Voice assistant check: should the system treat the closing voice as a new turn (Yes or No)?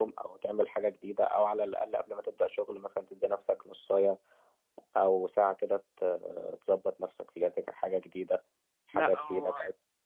Yes